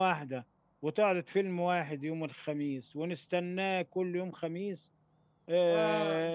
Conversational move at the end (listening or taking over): listening